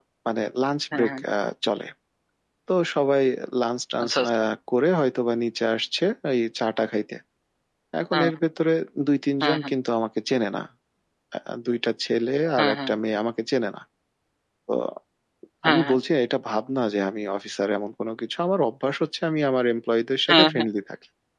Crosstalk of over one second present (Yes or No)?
No